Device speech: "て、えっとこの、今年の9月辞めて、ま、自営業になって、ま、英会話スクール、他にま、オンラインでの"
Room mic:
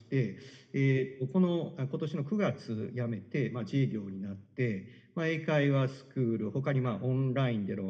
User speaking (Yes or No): No